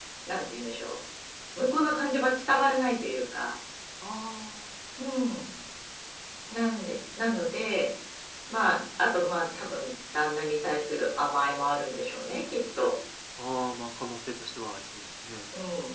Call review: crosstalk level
none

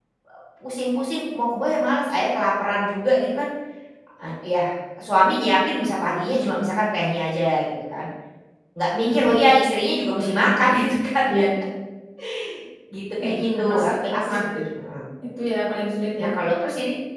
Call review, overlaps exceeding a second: present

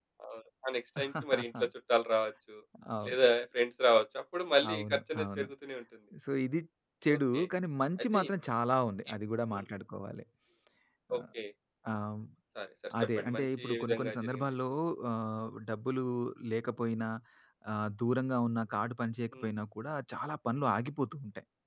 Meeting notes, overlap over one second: present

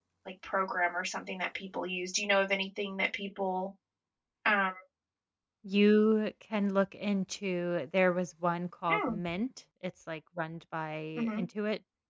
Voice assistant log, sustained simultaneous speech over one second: none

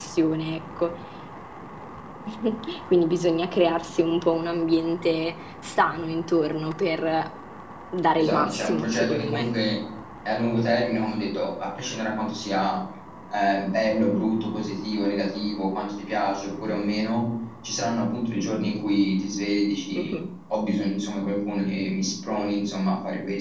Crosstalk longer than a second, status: present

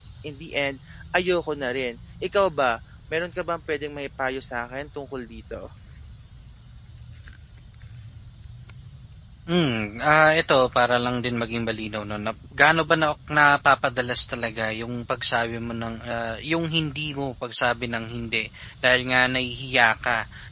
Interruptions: none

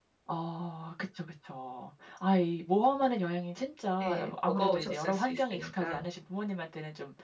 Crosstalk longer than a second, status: present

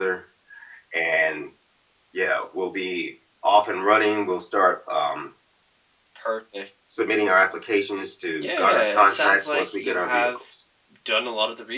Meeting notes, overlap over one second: present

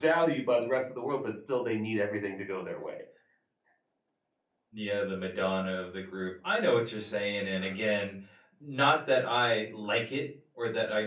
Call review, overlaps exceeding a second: none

